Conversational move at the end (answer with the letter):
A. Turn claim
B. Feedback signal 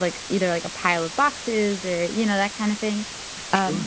B